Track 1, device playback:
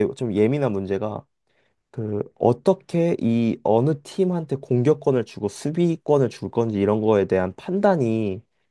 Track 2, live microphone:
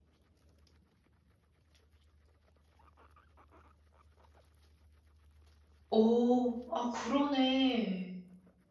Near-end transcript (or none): 오, 아, 그러네.